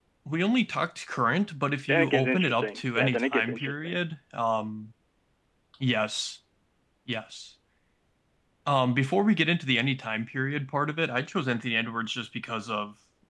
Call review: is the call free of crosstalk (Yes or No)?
No